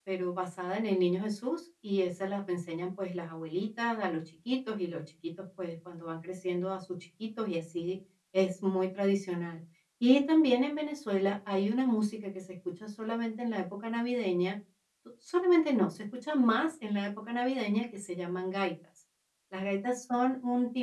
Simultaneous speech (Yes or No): No